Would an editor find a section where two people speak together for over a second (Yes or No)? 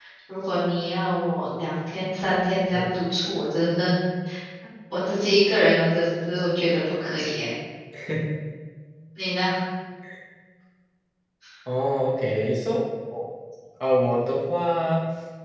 No